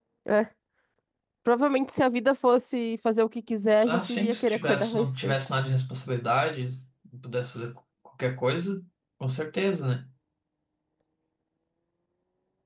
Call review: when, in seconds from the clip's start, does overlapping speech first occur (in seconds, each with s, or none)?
3.8 s